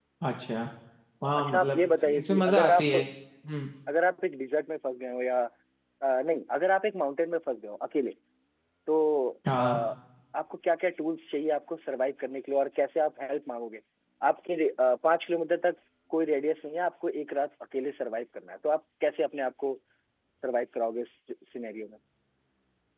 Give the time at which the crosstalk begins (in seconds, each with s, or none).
1.2 s